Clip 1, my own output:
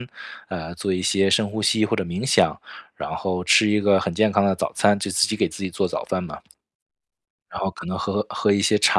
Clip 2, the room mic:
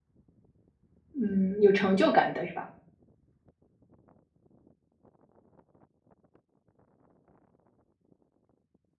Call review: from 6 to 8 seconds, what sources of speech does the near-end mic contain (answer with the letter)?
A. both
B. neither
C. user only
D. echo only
B